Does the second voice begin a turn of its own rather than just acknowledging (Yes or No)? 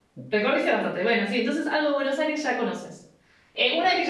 No